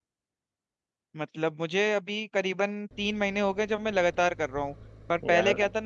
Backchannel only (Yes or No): Yes